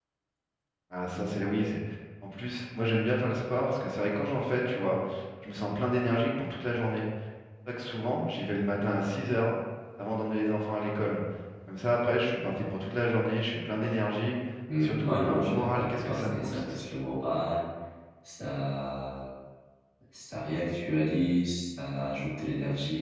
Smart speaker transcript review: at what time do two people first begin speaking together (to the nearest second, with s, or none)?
15 s